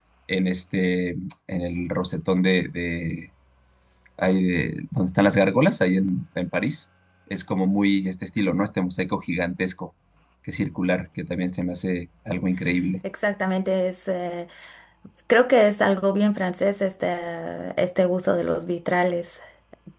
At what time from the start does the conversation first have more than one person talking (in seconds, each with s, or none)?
none